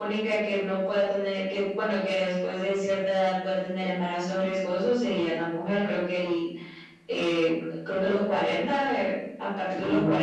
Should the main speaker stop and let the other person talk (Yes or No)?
No